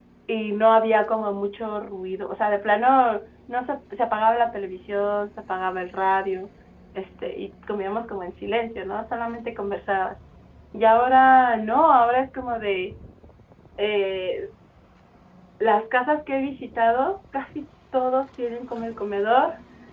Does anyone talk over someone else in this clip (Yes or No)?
No